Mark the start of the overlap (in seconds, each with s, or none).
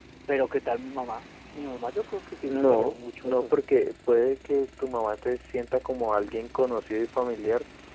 2.4 s